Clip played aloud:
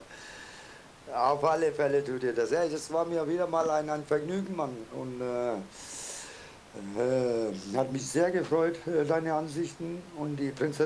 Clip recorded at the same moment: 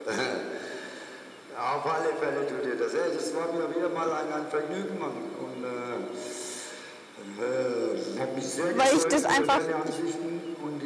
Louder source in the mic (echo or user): user